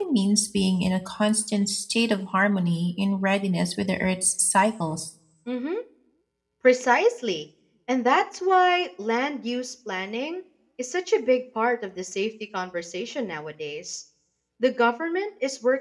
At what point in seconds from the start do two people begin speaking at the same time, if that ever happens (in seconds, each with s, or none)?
none